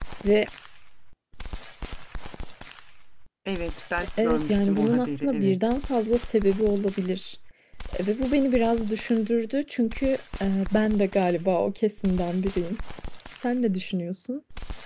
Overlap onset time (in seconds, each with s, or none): 4.2 s